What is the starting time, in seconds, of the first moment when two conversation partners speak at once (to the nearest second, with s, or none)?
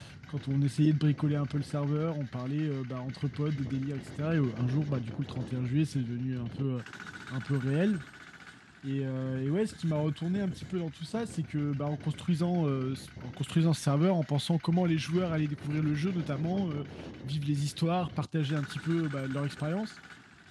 none